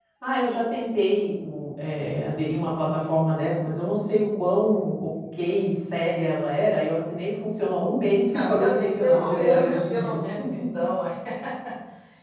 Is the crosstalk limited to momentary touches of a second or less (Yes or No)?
No